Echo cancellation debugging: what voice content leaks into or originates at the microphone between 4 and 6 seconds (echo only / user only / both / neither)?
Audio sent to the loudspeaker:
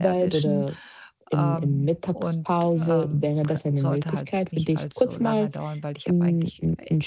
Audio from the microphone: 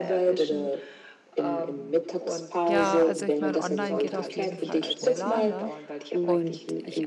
both